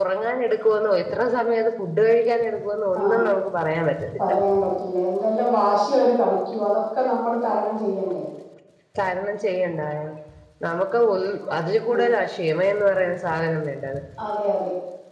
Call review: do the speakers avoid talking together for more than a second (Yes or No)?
Yes